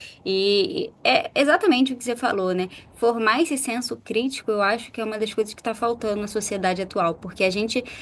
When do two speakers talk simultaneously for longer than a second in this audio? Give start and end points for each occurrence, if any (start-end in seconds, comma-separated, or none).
none